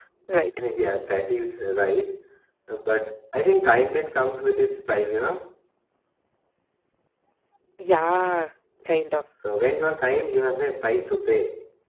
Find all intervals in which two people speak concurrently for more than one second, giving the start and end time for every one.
none

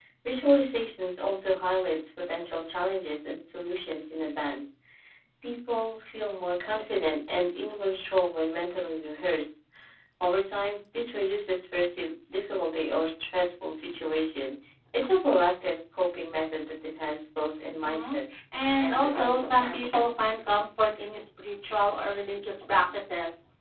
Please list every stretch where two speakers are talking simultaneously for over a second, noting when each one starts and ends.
18.8-20.1

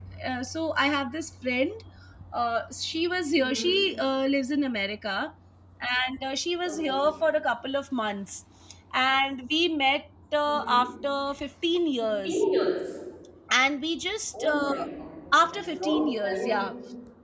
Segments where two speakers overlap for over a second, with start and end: 15.4-16.6

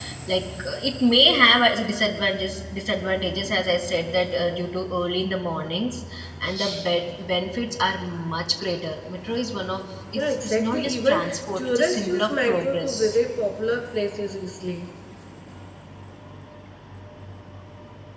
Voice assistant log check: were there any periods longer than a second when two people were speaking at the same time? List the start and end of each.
10.2-13.2

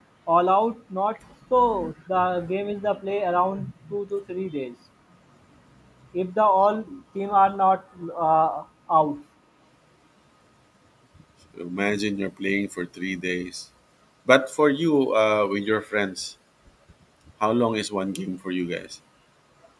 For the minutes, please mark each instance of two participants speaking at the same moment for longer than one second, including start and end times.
none

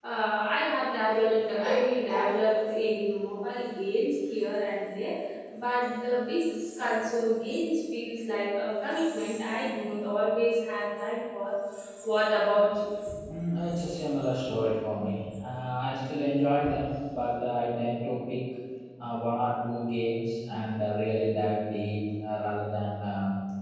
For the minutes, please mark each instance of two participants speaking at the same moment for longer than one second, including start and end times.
none

